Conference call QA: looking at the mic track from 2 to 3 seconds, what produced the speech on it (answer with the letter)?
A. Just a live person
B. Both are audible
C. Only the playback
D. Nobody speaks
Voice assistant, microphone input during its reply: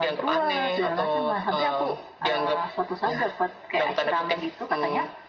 C